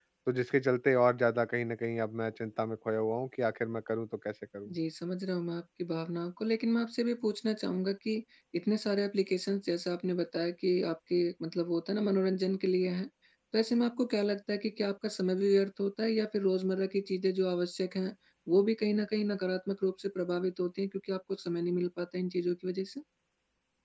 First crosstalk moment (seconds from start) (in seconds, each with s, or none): none